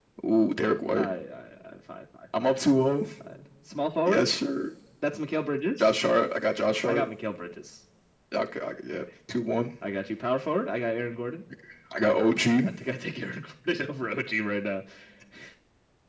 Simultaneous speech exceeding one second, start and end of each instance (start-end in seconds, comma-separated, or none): none